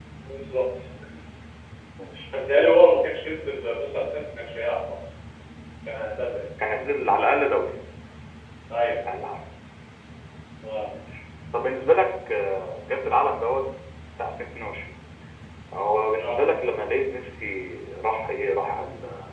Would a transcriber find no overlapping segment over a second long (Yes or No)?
Yes